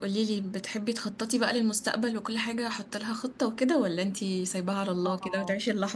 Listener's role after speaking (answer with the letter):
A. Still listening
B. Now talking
B